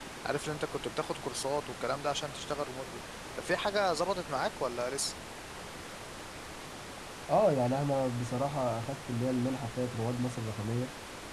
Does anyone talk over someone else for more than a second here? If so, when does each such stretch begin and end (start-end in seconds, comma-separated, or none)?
none